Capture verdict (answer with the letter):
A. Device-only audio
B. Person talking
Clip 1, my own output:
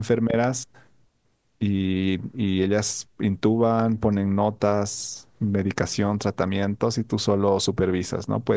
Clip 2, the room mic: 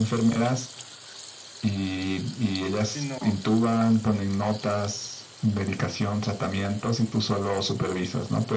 B